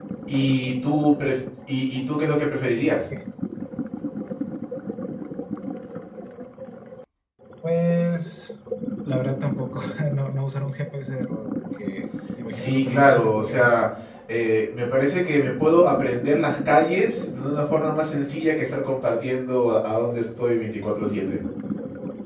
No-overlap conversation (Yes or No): No